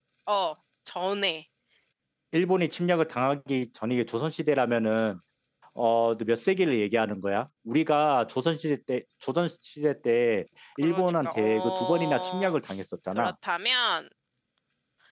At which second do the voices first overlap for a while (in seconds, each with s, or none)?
10.8 s